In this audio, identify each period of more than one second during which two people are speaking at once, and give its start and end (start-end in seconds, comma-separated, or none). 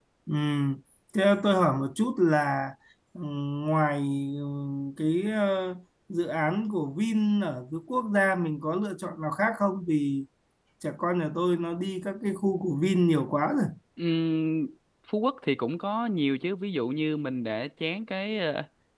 none